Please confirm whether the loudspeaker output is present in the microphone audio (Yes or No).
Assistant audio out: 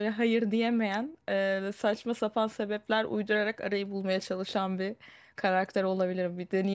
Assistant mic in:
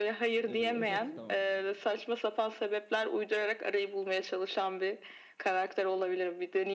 Yes